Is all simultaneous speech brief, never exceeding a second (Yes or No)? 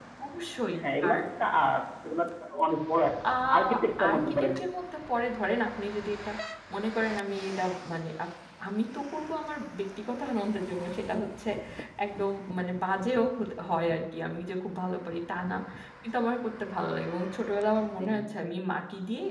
Yes